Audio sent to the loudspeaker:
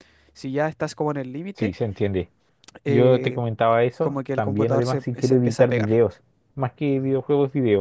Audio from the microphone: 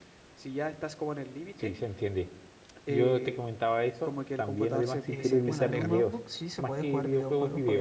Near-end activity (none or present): present